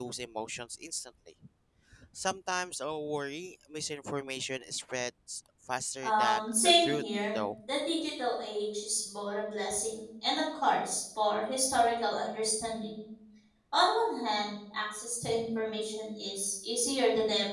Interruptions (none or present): present